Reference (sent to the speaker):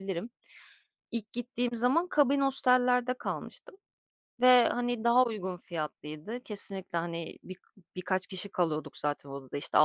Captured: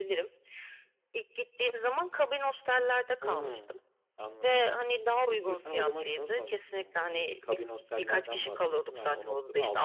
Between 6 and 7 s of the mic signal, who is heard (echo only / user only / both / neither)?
both